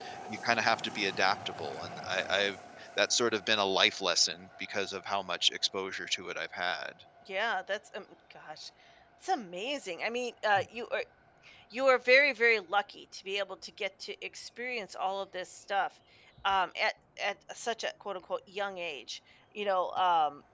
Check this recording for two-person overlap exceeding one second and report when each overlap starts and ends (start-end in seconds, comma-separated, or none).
none